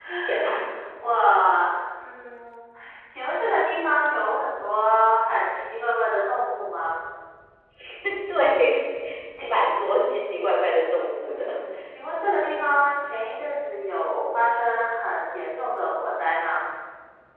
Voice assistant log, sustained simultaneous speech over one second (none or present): none